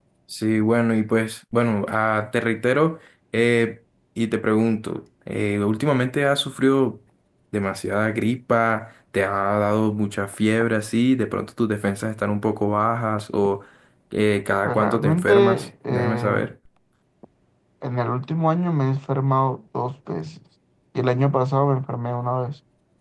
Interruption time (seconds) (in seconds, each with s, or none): 14.6 s